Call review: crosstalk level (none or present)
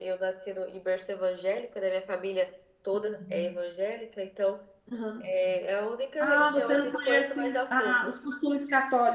present